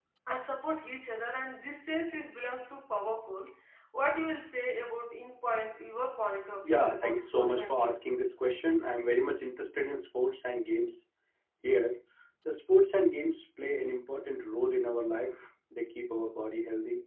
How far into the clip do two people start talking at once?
6.6 s

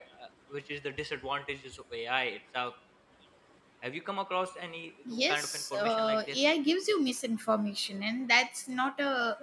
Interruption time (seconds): 5.0 s

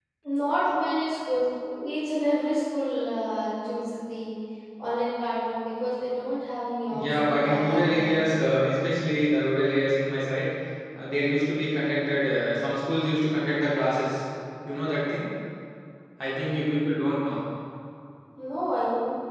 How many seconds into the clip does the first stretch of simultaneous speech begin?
6.9 s

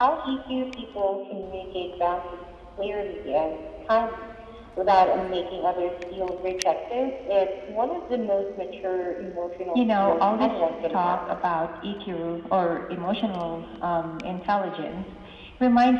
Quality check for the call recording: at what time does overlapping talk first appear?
9.7 s

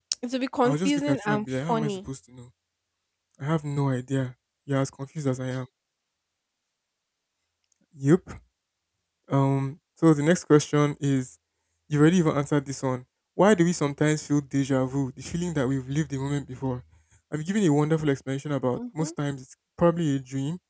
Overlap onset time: 0.6 s

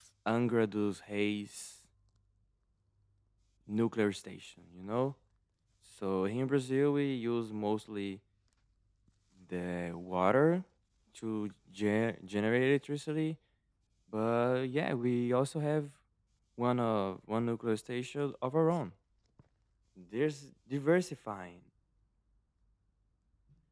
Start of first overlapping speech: none

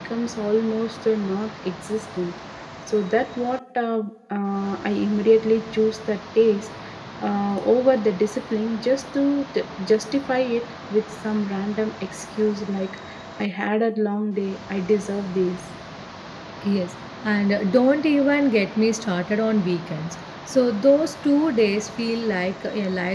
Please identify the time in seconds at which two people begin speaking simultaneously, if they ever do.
none

